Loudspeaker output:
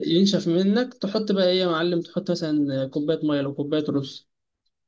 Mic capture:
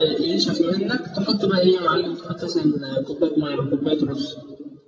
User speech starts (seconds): none

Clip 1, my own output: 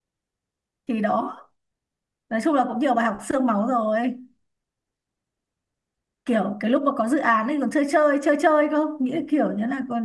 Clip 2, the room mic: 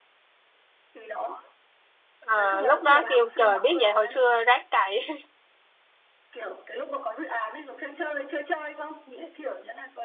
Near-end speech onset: 2.2 s

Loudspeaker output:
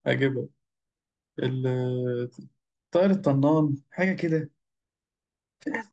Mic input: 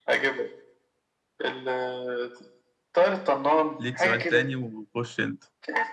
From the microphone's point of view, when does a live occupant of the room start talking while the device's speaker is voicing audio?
3.8 s

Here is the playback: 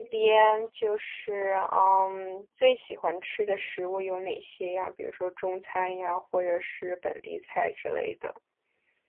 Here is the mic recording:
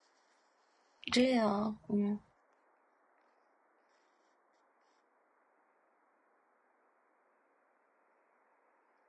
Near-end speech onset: 1.1 s

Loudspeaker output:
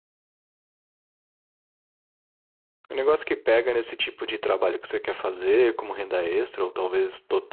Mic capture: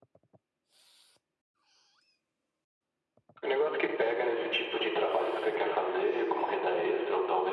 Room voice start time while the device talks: none

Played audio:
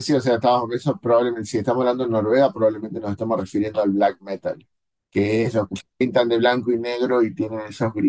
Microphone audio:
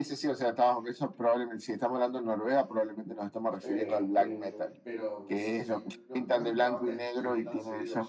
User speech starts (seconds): 3.6 s

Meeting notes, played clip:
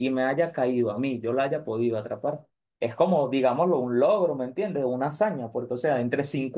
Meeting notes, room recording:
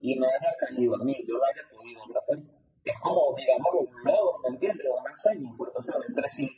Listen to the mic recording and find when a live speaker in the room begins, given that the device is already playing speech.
none

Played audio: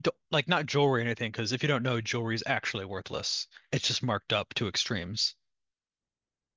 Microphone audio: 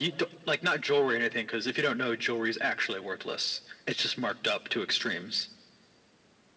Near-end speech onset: none

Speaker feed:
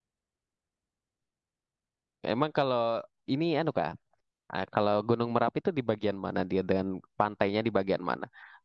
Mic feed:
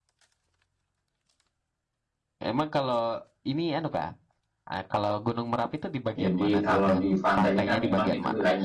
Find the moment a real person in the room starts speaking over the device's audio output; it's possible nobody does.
6.2 s

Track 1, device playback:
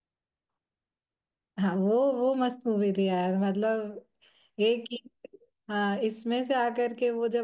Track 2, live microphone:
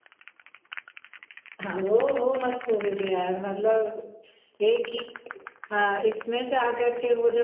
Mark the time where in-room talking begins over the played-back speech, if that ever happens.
none

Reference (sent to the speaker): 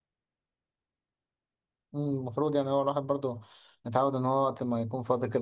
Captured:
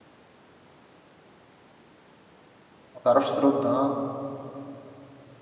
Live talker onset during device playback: 2.9 s

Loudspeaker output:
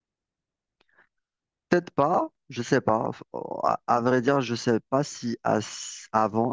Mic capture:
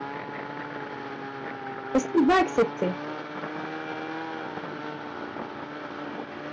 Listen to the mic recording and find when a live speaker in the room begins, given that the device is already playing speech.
1.9 s

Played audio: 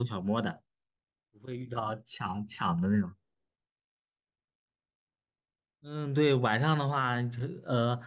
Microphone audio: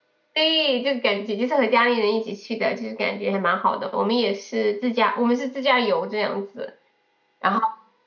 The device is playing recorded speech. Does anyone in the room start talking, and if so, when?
0.3 s

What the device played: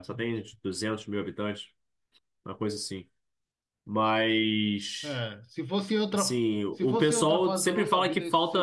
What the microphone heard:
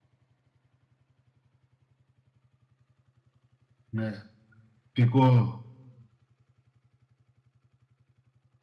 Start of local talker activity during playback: 3.9 s

